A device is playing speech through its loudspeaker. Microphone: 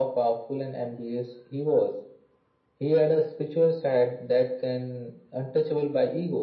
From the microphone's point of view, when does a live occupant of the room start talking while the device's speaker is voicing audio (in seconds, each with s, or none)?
none